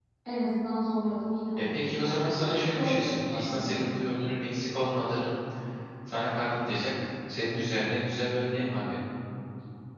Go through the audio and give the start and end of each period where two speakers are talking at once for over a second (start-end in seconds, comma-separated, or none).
1.6-3.8